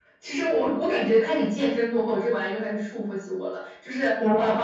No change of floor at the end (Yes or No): Yes